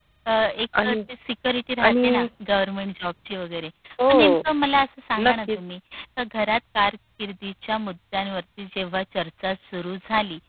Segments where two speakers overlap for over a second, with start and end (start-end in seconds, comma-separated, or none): none